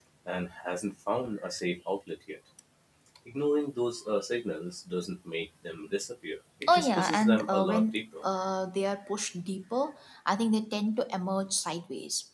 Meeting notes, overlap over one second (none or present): present